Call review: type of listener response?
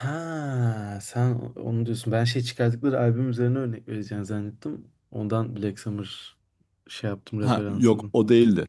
taking over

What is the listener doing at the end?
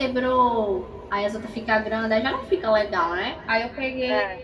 listening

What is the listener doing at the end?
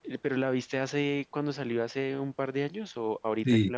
taking over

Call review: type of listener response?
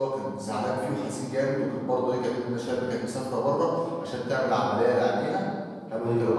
listening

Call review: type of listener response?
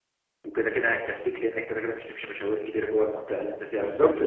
taking over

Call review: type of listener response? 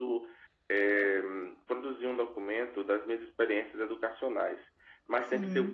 listening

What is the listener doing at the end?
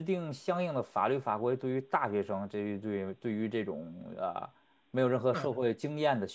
listening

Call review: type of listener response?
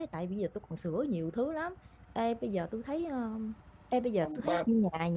listening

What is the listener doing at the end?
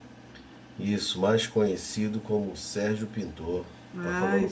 taking over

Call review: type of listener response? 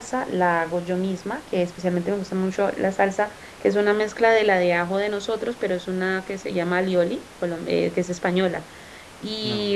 listening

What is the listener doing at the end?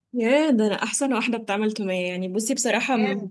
listening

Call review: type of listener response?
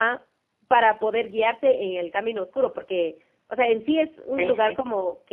listening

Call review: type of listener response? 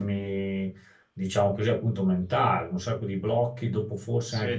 taking over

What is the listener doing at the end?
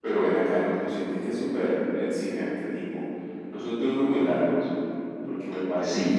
taking over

